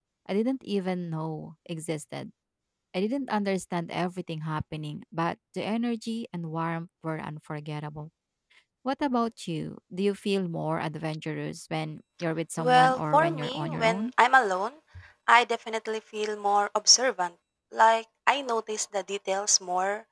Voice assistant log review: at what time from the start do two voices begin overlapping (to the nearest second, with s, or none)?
13 s